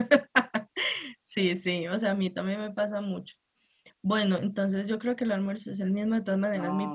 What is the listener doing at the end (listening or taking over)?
listening